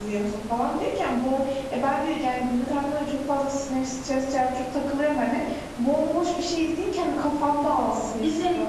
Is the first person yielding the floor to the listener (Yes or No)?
No